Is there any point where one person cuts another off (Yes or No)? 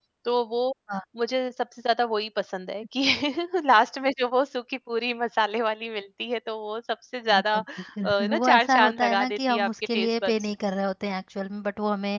Yes